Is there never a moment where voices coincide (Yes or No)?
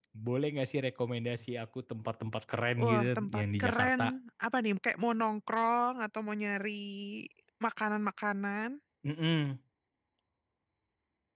No